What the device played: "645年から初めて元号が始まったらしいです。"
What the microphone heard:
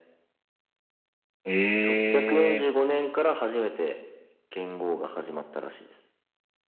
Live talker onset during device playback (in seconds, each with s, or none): 1.4 s